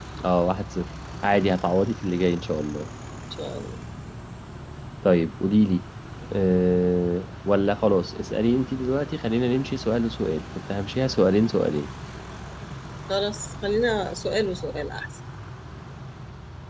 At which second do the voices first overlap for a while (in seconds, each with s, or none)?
none